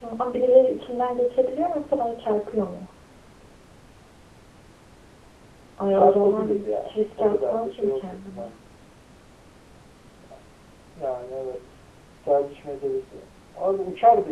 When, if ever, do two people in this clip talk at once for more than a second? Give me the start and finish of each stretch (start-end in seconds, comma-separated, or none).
5.9-8.5